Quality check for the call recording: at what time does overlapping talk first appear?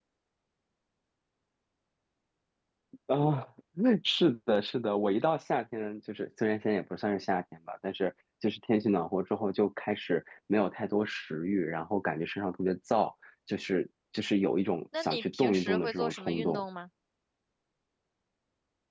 15 s

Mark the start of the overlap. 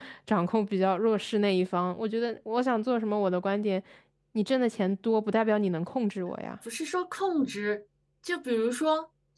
none

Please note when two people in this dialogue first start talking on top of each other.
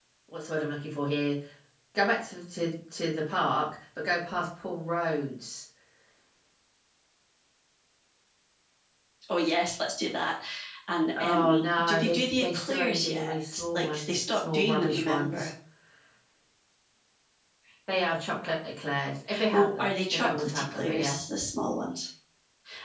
11 s

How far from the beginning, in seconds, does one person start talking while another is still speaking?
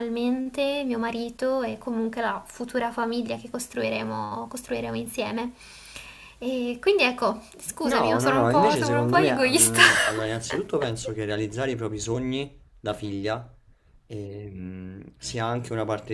8 s

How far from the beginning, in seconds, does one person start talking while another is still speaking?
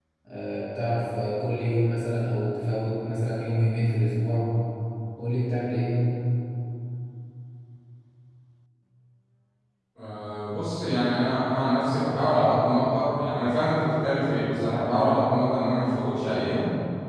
none

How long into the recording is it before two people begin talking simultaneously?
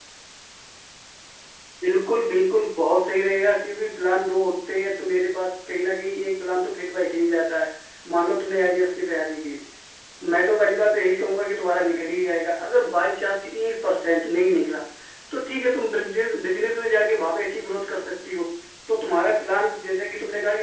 none

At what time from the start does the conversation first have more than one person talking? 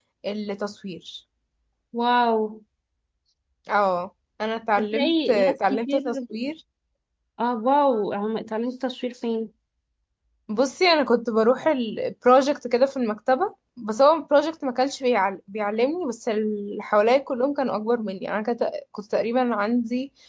5 s

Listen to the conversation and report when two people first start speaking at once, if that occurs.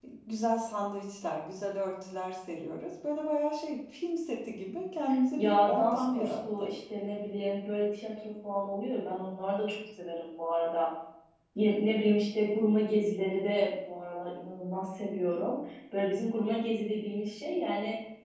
5 s

